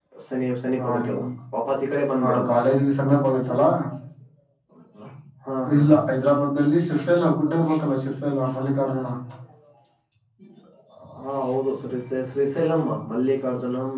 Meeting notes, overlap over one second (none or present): none